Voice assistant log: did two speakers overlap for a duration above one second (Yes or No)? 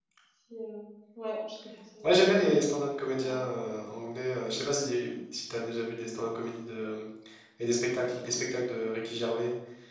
No